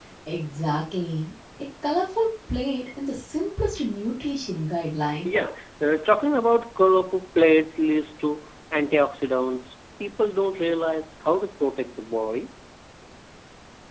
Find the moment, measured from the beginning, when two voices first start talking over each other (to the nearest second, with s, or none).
none